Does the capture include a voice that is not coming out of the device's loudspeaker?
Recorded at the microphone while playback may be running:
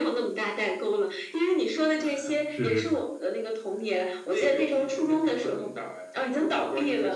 Yes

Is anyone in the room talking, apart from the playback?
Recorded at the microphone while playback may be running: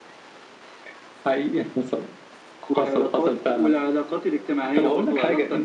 Yes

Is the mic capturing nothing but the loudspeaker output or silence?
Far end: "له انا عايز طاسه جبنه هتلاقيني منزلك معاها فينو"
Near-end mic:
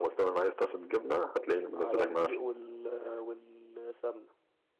No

